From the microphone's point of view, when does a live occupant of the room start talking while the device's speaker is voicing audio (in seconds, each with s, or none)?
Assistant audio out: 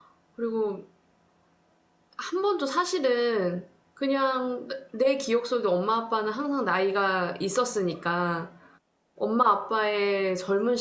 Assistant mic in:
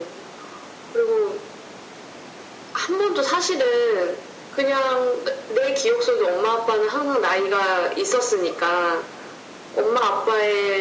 none